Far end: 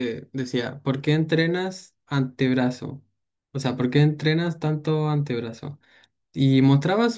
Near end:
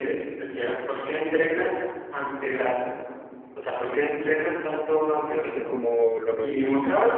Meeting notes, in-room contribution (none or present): present